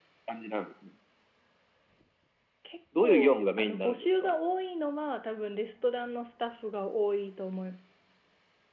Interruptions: present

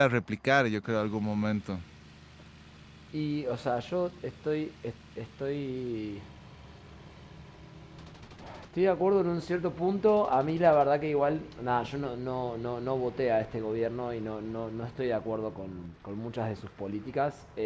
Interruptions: none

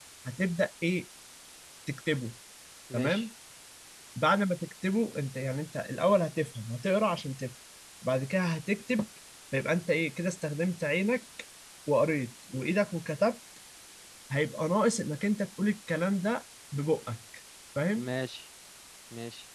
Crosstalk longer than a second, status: none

